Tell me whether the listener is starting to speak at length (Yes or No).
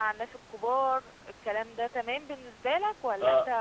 Yes